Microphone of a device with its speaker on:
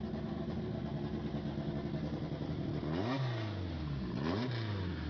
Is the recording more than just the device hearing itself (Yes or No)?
No